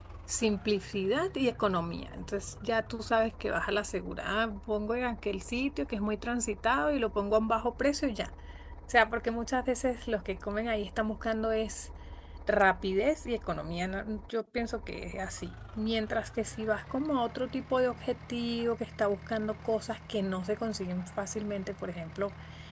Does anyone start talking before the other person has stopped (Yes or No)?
No